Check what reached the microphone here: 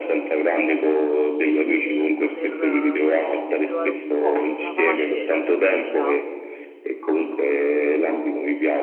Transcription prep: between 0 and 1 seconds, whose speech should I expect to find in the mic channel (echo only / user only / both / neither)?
echo only